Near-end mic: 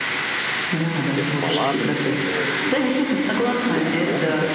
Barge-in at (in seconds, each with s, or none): 1.1 s